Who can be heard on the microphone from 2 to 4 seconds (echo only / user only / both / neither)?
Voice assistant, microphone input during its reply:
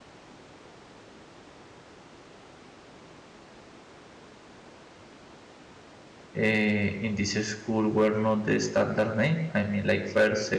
neither